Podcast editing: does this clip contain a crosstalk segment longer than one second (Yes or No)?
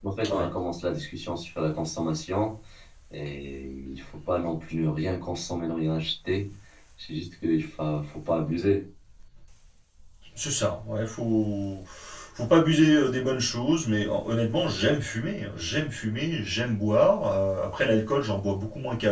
No